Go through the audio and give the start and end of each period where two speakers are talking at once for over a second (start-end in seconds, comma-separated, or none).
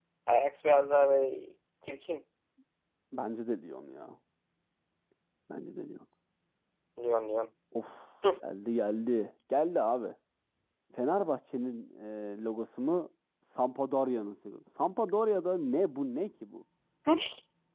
none